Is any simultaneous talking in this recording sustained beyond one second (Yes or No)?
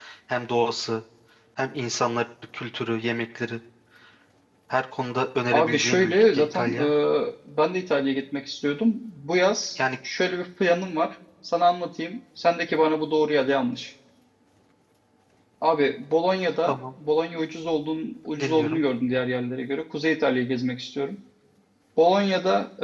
Yes